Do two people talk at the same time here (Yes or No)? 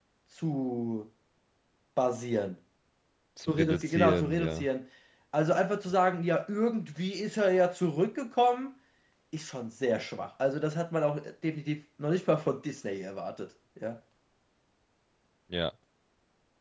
Yes